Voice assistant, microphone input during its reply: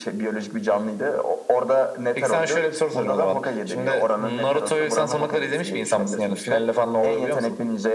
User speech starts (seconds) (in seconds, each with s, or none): none